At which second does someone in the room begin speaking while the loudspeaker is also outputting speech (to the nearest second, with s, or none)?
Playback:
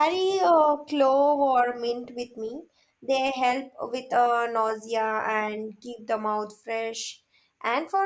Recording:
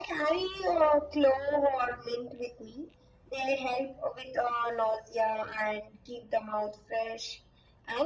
none